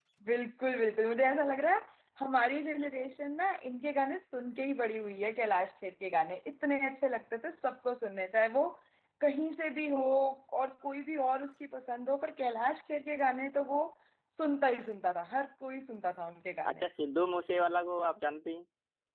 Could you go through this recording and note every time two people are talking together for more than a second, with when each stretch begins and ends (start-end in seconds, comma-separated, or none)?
none